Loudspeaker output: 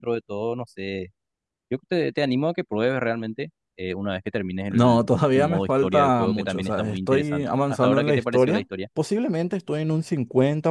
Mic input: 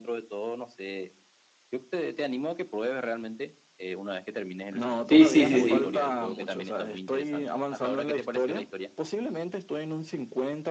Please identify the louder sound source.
user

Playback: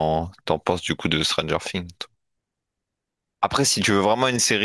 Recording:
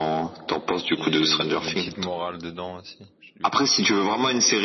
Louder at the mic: echo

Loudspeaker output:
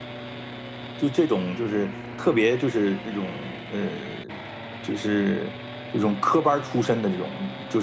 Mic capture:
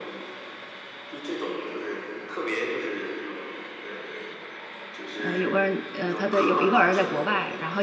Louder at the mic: user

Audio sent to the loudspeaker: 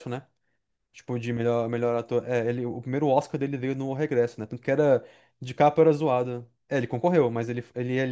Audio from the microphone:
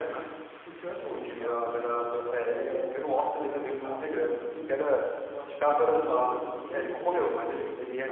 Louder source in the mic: echo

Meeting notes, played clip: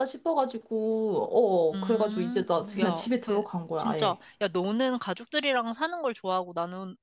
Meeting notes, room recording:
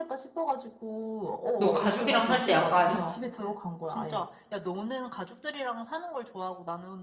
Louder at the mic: user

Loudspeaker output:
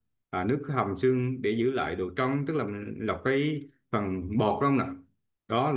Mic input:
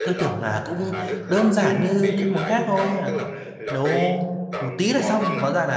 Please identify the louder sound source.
user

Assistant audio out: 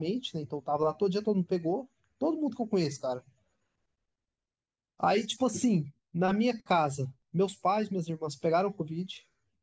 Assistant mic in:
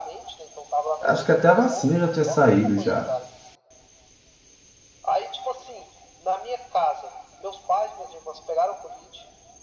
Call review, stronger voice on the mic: user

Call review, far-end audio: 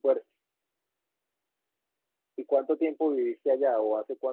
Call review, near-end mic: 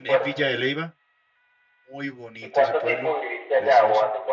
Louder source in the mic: echo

